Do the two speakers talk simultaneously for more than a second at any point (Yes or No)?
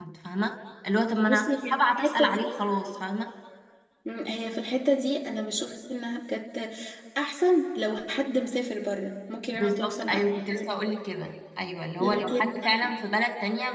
Yes